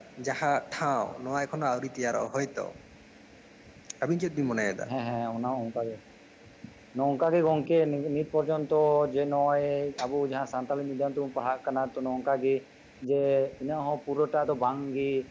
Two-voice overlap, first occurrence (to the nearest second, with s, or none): none